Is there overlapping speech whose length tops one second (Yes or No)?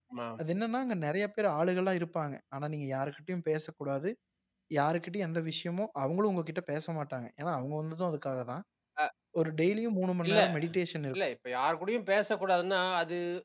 No